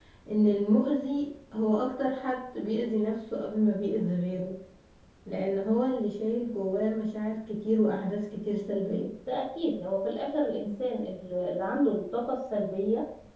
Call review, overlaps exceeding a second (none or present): none